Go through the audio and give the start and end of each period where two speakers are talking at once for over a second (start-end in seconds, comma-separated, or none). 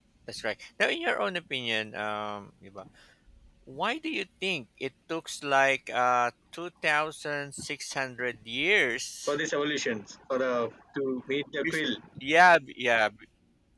none